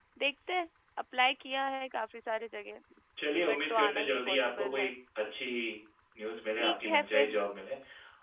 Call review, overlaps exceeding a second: present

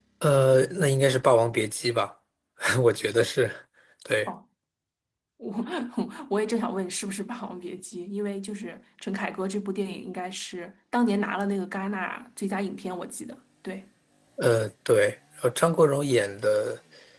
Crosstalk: none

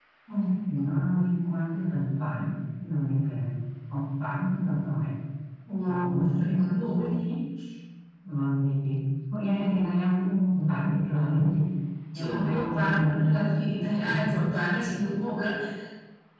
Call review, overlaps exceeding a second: present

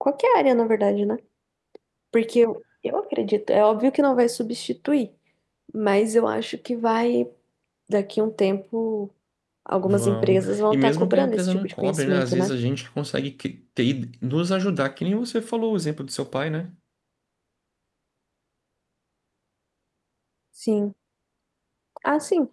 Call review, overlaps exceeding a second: present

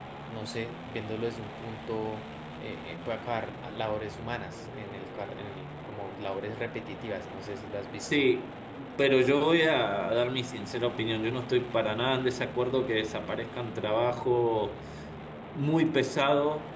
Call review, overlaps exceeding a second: none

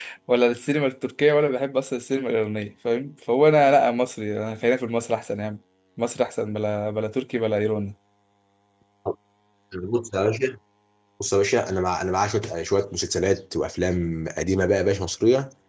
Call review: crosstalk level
none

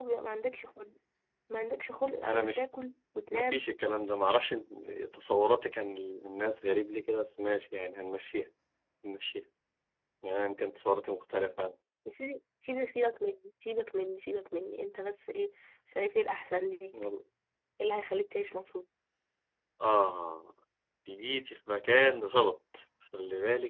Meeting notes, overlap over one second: none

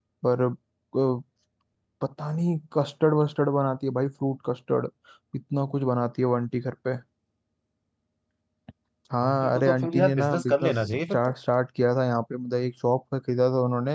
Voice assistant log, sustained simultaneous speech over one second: present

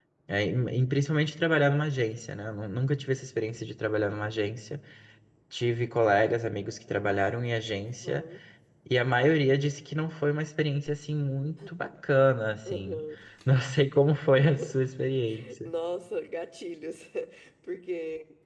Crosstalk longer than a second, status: none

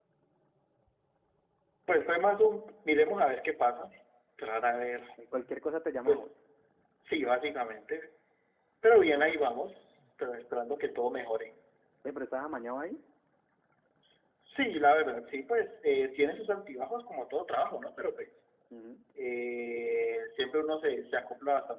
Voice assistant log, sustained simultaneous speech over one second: none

